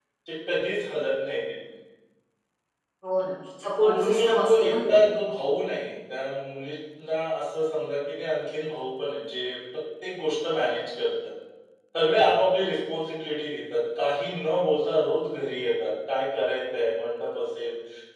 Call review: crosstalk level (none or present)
present